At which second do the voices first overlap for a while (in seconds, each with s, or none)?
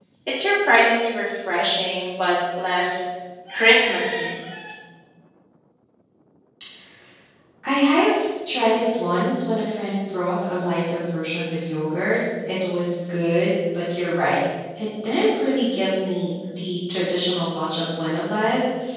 none